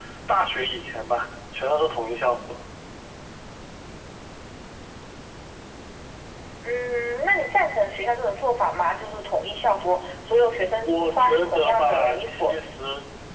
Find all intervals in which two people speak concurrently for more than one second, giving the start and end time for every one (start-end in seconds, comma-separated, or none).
10.8-12.5